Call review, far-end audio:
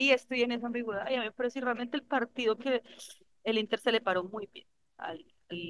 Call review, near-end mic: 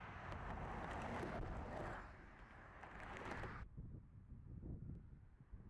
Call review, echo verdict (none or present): none